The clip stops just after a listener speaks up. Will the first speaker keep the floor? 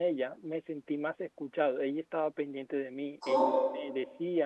Yes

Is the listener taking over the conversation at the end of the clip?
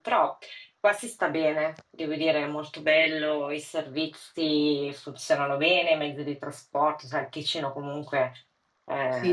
No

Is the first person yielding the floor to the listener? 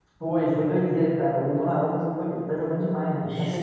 Yes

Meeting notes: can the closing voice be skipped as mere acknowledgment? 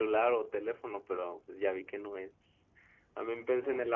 Yes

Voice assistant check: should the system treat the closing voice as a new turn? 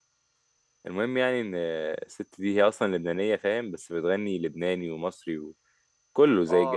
No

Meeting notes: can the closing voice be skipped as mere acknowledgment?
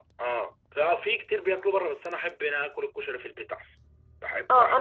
No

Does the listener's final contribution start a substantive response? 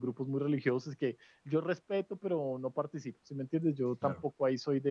No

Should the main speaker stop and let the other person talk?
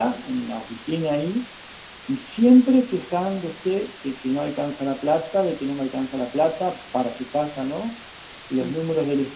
No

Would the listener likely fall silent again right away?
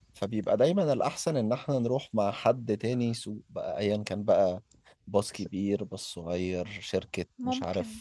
Yes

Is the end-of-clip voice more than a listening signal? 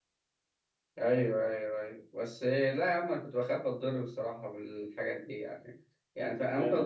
No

